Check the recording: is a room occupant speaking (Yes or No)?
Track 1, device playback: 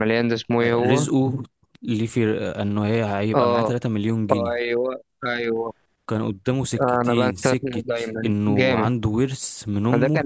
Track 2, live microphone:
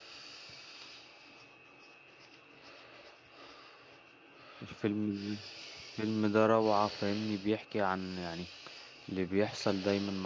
Yes